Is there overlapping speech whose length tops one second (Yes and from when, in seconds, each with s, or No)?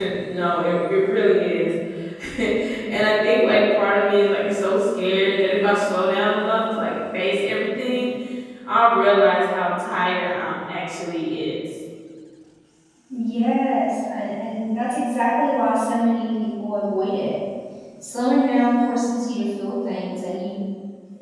No